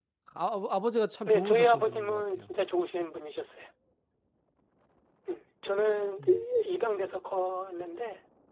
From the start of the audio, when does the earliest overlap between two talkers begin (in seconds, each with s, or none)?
1.3 s